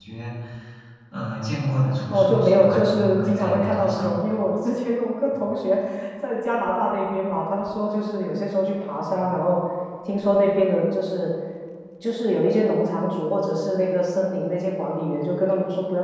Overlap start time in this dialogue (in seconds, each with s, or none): 2.1 s